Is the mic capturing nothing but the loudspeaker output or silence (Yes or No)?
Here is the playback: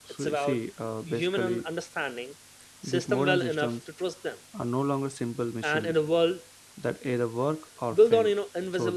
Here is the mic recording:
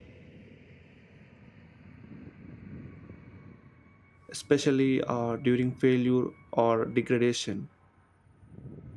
No